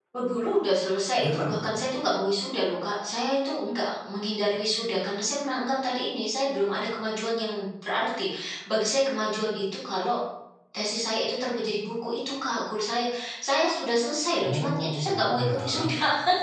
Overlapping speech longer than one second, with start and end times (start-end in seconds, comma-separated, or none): 14.4-15.8